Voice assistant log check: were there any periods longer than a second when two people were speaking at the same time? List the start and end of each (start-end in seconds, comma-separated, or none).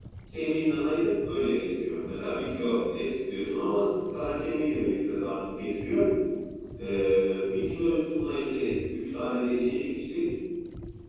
none